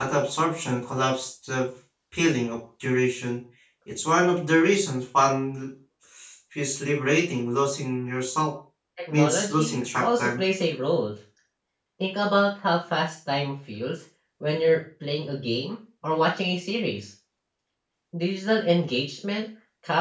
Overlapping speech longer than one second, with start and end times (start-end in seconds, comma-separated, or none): 9.1-10.4